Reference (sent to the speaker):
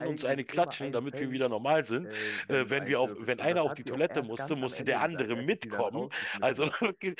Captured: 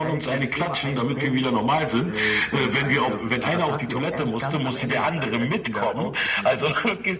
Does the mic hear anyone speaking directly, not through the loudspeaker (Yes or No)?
No